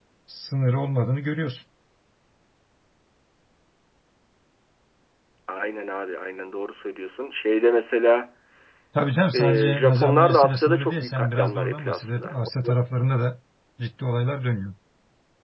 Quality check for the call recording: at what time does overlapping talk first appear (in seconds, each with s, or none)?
9.3 s